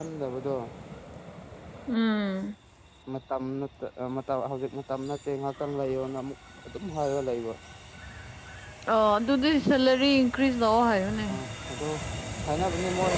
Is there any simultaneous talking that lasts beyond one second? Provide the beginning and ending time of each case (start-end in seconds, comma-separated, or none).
none